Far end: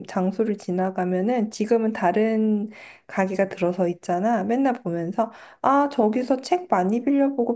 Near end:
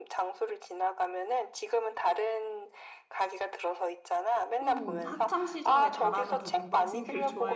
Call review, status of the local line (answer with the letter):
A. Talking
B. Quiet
A